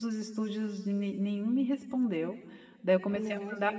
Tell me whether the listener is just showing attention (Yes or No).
Yes